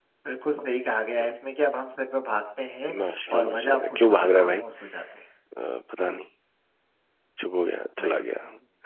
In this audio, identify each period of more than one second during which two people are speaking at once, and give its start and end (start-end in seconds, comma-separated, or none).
3.4-4.6